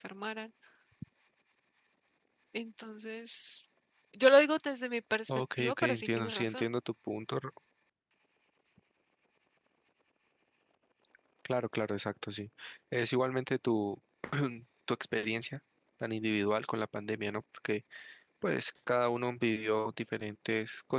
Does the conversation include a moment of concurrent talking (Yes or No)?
Yes